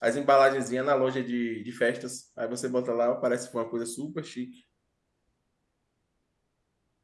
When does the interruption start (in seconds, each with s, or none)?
none